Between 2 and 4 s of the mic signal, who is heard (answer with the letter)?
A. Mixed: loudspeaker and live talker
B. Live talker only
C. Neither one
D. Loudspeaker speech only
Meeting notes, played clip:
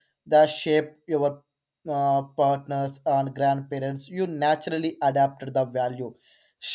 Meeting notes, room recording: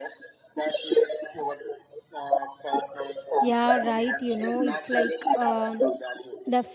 A